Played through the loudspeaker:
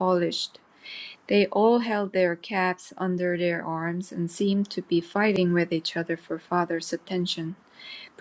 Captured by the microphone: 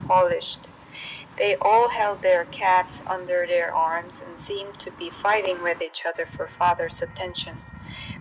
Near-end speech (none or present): none